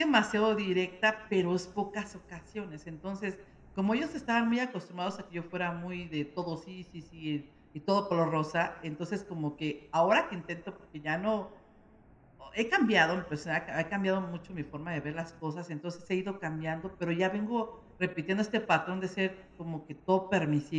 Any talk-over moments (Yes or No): No